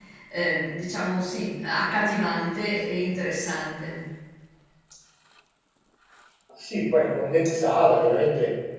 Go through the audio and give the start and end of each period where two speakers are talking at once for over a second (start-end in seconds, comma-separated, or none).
none